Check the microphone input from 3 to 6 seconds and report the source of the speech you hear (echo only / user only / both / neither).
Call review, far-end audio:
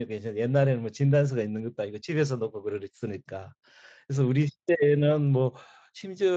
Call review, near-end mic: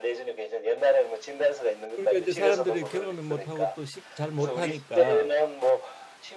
both